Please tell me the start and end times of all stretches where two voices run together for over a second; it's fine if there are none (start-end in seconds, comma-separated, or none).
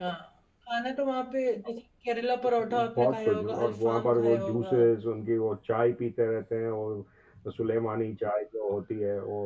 2.7-4.8